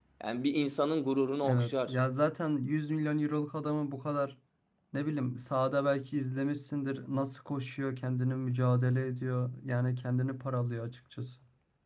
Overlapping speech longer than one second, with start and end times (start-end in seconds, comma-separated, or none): none